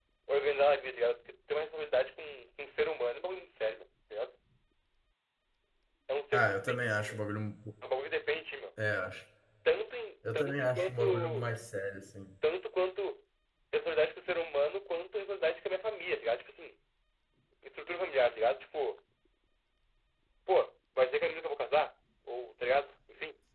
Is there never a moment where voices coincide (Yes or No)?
No